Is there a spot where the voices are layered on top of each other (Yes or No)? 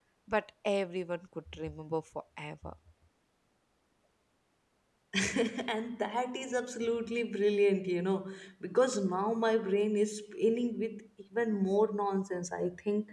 No